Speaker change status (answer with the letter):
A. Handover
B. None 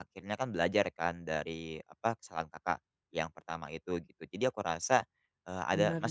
B